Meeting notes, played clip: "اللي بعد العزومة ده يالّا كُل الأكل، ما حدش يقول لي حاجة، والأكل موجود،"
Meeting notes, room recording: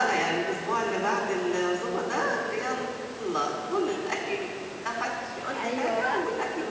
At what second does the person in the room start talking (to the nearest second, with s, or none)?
6 s